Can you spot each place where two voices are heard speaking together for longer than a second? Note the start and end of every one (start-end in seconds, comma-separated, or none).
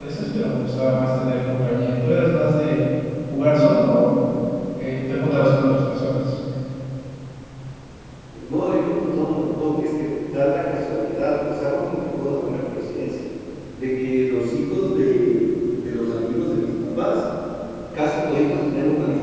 none